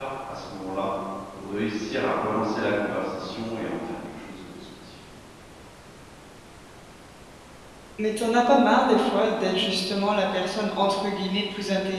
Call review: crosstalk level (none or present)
none